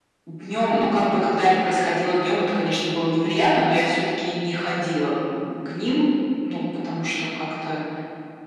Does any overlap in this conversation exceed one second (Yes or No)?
No